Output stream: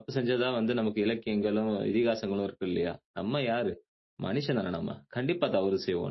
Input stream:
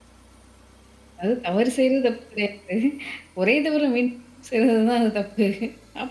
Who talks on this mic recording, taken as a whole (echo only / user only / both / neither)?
user only